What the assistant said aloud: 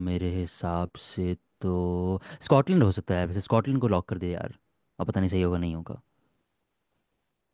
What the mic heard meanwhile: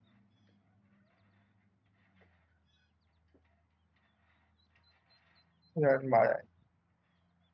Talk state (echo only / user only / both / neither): user only